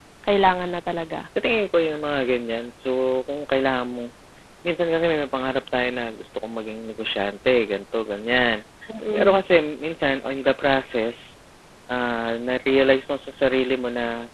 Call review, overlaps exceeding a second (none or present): none